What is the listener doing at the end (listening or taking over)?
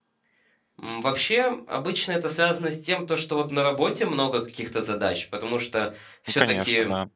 listening